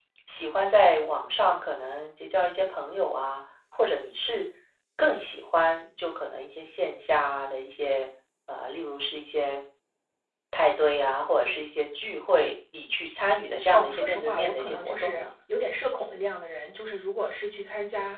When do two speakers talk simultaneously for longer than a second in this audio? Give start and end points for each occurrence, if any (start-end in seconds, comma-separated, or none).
13.7-15.3